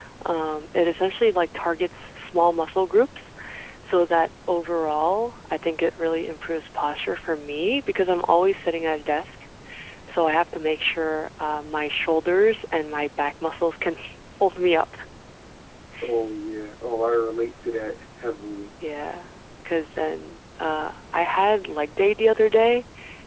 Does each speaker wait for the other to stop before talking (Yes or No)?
Yes